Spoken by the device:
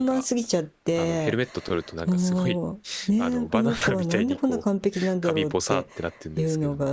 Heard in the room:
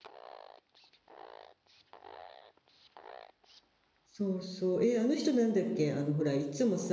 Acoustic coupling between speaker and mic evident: No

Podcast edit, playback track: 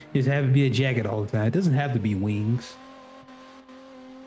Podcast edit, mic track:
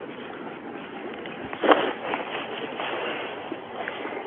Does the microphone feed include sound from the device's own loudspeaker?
No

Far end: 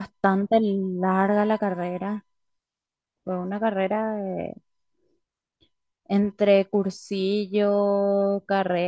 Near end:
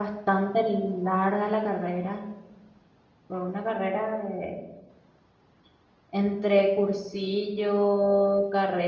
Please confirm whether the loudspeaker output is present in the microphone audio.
Yes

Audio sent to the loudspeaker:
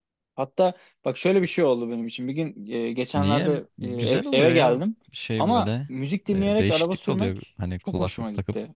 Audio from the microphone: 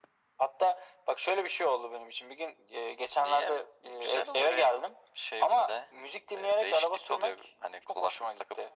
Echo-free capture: No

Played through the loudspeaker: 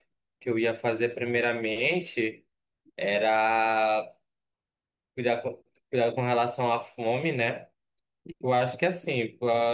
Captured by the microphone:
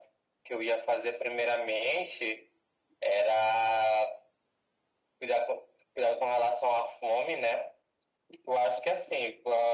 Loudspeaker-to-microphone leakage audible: Yes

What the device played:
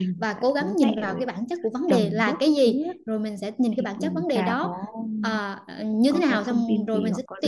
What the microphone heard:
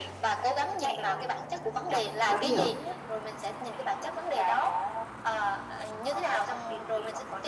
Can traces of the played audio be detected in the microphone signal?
Yes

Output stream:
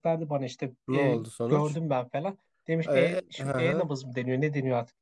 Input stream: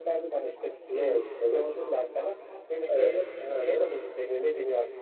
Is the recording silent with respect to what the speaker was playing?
No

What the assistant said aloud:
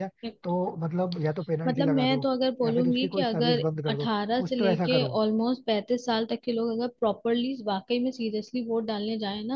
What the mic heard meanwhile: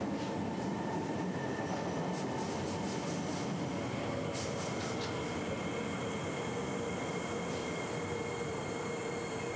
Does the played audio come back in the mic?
No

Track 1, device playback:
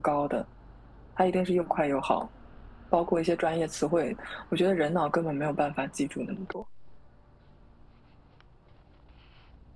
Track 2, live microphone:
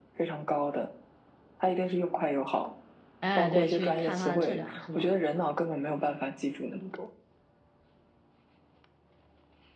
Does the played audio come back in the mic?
Yes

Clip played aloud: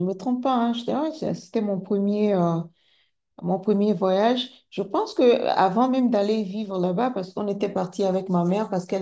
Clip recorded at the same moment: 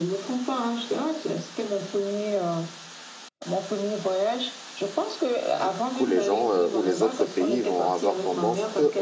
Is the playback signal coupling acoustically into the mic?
Yes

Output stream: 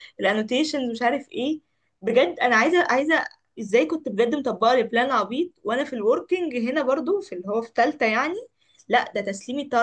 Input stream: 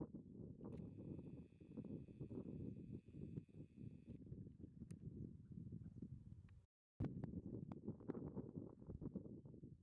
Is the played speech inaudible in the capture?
Yes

